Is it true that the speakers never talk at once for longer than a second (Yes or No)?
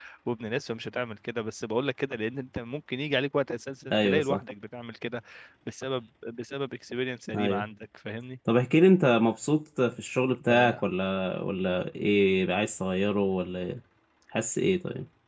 Yes